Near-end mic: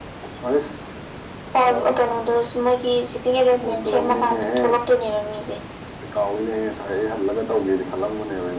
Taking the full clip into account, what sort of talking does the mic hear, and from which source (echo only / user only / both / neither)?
echo only